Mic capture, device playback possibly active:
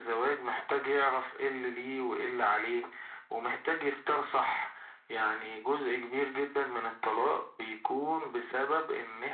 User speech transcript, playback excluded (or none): none